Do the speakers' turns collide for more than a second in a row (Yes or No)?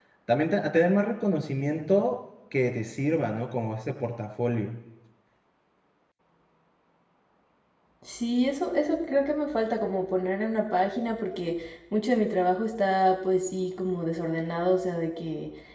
No